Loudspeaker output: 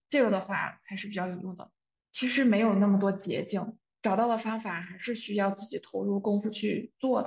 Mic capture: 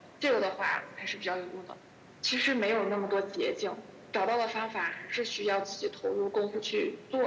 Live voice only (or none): none